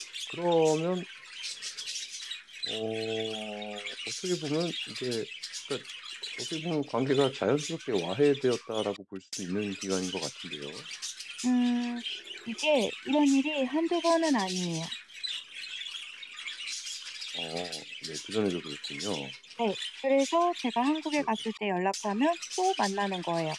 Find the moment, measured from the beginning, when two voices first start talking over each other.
none

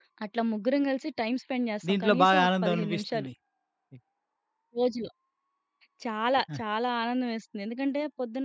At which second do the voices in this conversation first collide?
1.8 s

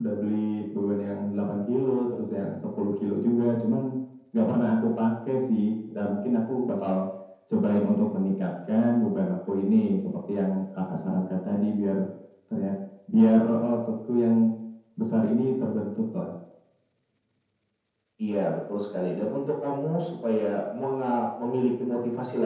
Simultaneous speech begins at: none

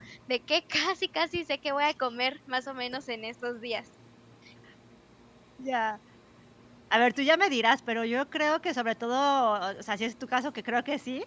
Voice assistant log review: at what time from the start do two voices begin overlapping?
none

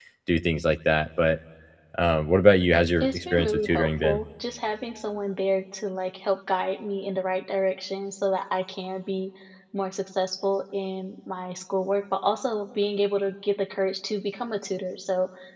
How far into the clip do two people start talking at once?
3.0 s

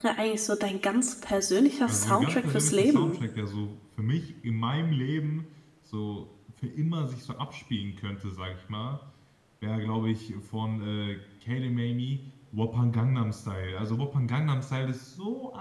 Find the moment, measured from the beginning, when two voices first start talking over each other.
1.9 s

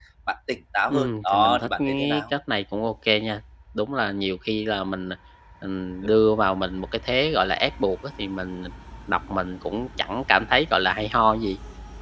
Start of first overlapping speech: 0.9 s

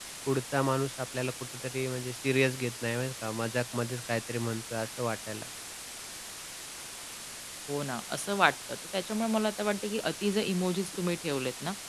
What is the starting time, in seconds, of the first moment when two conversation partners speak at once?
none

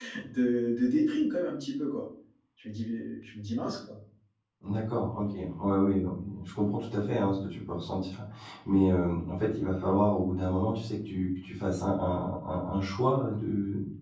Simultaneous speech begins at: none

